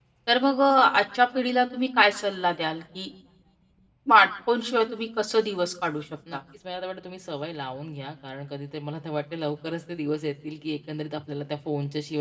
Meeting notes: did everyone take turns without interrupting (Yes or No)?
Yes